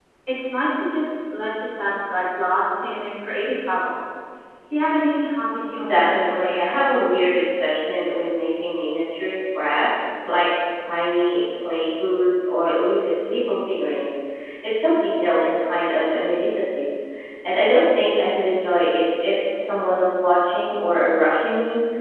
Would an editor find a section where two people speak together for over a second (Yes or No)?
Yes